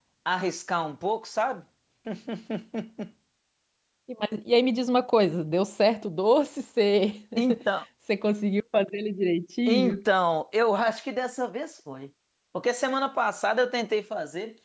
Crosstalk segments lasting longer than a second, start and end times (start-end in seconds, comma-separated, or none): none